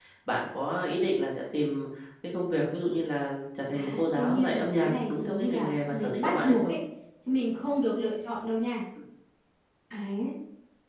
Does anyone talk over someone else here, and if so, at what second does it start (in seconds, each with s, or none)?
3.7 s